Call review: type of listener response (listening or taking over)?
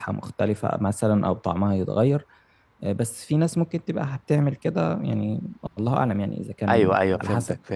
taking over